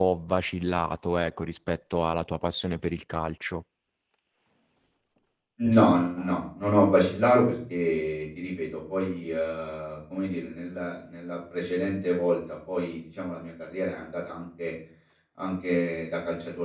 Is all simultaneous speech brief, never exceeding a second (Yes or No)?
Yes